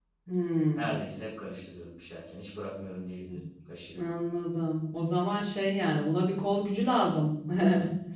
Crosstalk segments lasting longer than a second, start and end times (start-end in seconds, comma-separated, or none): none